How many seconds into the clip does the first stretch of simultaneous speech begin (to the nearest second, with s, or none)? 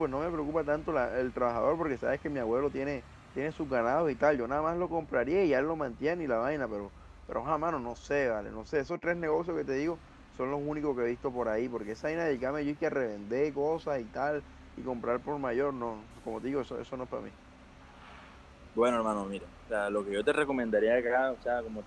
none